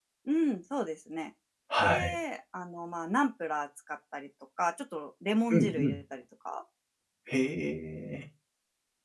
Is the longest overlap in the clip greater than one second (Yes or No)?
No